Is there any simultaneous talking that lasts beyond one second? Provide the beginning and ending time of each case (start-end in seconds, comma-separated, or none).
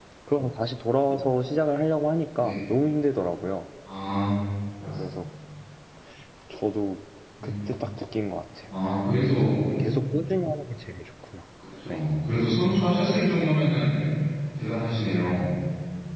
none